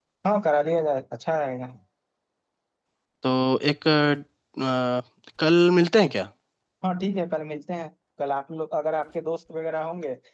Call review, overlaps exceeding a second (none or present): none